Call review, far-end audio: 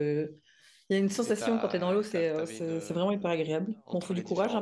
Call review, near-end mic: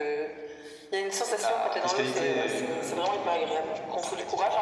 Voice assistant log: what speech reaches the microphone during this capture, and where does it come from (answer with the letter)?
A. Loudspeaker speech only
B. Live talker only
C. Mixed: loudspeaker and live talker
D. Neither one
C